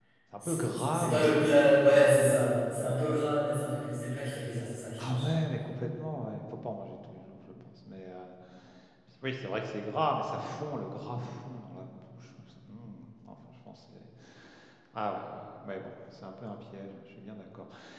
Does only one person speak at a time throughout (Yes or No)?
No